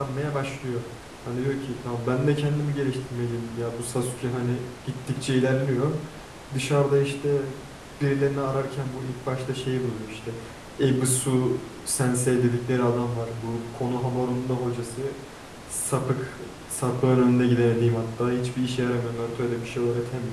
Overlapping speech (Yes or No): No